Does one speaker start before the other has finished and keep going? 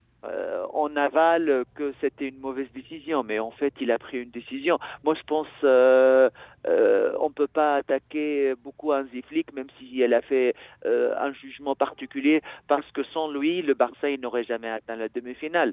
No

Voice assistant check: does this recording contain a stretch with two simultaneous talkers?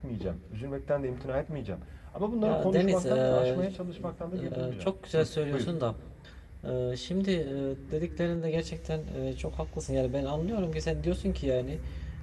Yes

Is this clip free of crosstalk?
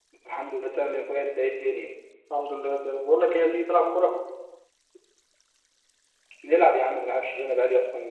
Yes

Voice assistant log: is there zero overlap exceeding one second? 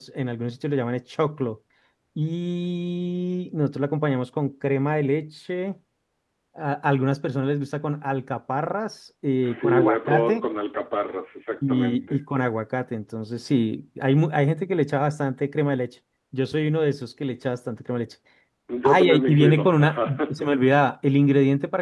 No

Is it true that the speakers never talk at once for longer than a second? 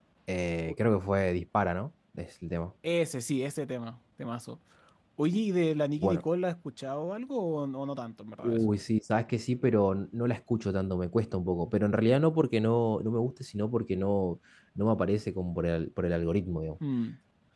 Yes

